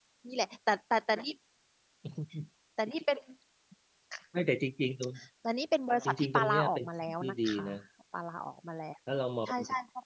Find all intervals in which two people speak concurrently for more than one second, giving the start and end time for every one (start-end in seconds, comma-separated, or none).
6.0-7.7